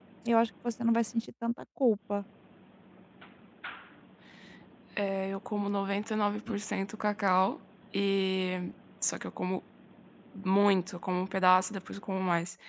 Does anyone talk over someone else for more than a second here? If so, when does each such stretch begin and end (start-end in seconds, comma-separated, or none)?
none